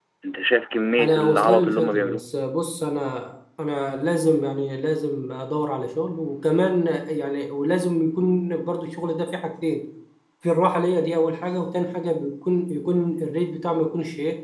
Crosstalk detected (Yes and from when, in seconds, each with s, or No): Yes, from 1.0 s